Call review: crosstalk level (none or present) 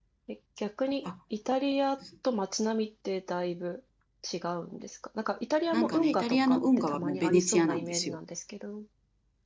present